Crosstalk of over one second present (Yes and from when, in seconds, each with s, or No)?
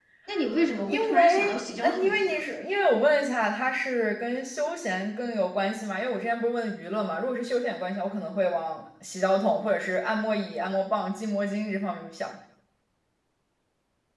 Yes, from 0.8 s